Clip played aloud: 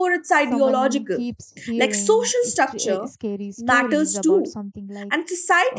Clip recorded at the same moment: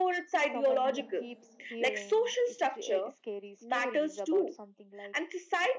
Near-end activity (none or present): present